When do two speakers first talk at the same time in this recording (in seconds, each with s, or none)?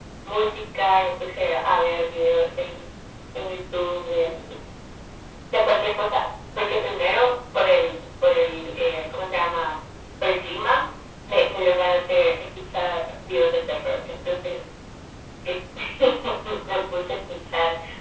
none